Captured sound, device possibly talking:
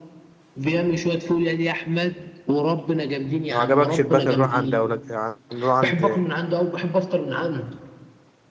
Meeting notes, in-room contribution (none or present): present